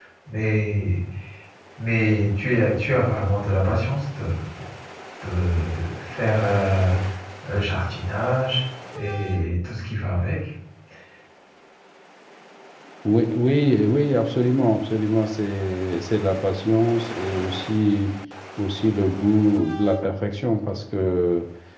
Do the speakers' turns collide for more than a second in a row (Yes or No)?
No